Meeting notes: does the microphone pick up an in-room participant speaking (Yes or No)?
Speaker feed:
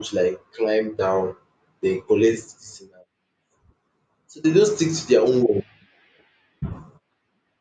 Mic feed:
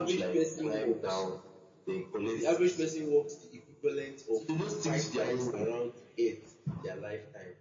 Yes